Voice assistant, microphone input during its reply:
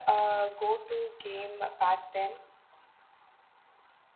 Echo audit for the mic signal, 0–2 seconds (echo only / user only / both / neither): echo only